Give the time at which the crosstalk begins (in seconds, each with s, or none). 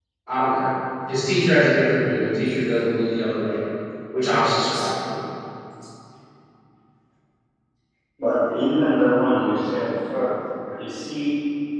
none